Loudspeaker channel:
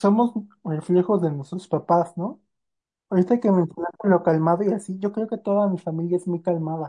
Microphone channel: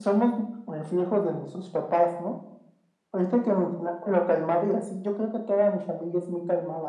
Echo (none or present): present